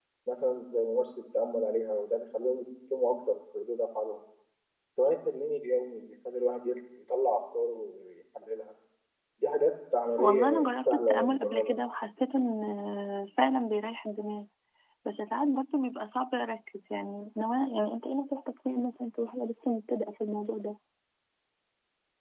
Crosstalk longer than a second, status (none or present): present